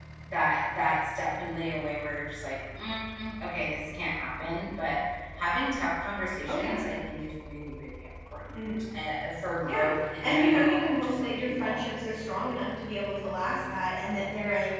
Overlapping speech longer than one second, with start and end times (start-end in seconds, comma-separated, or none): 10.2-11.8